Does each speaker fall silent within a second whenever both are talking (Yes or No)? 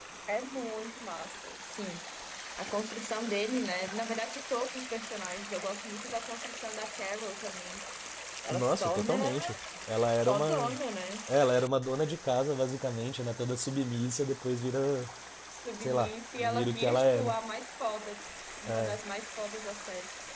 No